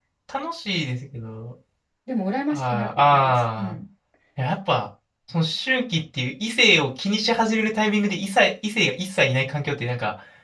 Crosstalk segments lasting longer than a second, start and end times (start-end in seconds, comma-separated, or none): 2.5-3.8